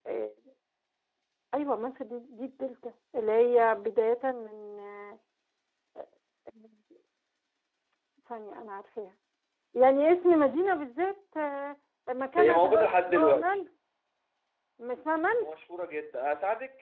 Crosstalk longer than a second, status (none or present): present